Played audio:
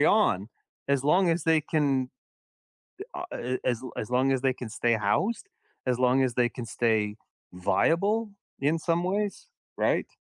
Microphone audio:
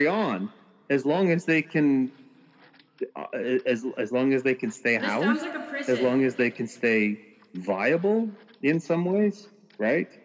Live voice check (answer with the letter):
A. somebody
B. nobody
A